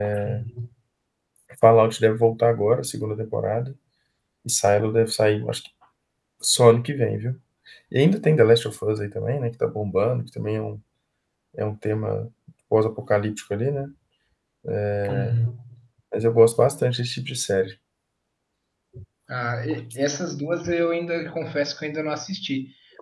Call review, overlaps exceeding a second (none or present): none